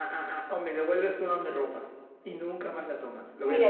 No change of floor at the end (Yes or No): No